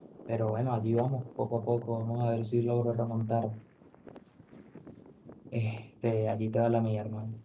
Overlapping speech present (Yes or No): No